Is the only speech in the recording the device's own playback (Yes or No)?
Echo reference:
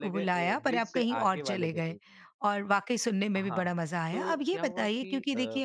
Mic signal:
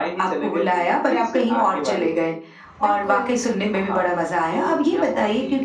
No